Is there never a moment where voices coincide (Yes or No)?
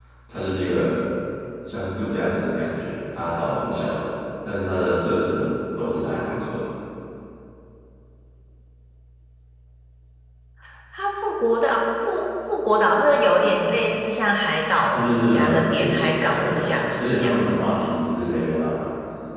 No